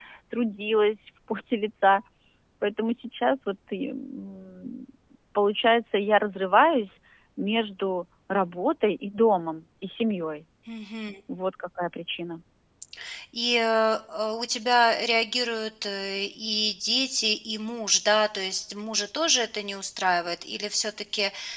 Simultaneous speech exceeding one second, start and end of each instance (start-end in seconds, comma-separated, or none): none